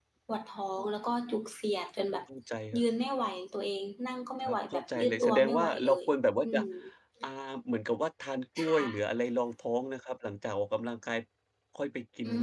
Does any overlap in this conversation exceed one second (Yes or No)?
Yes